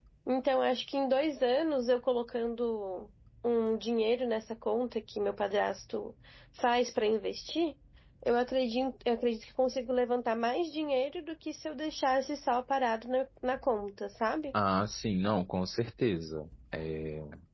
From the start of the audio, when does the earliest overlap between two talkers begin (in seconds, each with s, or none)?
none